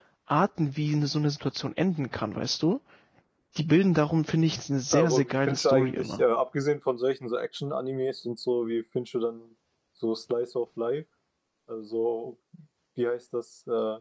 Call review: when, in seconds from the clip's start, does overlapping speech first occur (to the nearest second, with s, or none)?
5 s